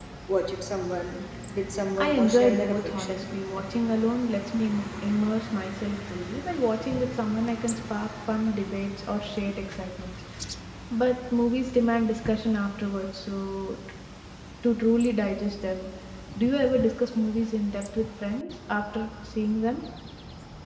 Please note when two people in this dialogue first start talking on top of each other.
2.0 s

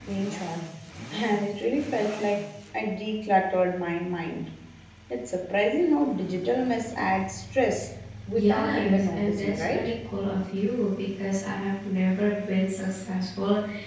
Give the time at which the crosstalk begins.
8.3 s

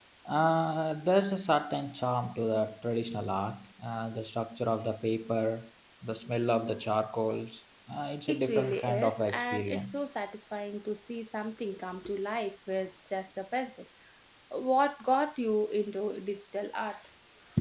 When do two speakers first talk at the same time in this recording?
8.3 s

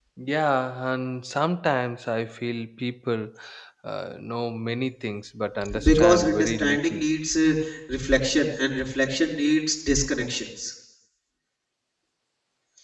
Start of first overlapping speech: 5.6 s

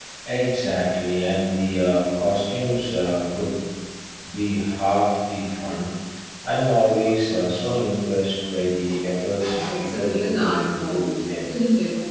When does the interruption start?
9.5 s

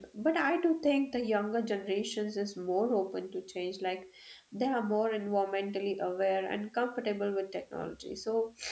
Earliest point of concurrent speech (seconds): none

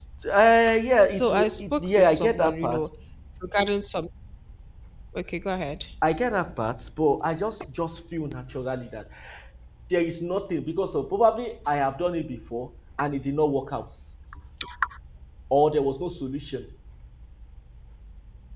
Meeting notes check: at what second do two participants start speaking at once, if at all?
1.1 s

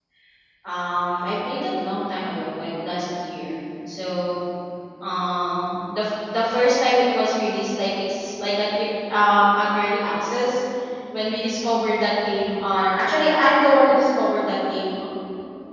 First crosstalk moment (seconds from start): none

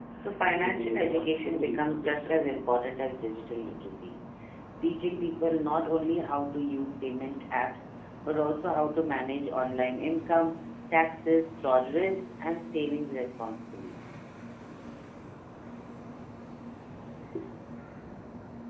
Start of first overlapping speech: 0.5 s

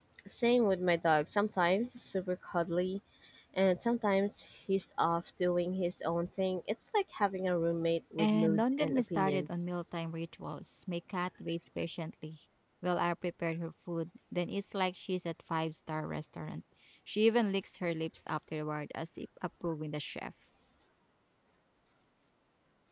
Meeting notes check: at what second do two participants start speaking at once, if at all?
8.2 s

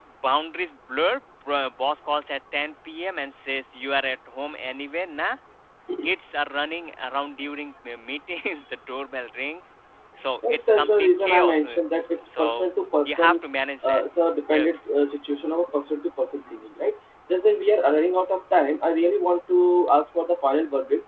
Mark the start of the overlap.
10.4 s

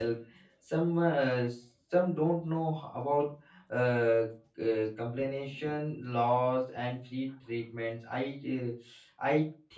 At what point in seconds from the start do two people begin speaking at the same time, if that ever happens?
none

